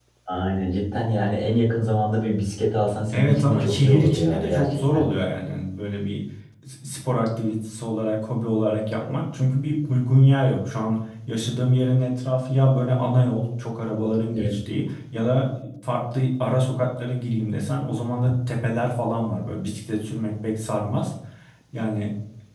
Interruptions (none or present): present